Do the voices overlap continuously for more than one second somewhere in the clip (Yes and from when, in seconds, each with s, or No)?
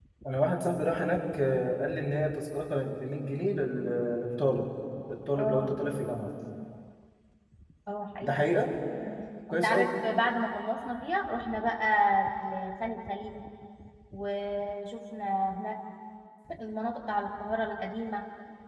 No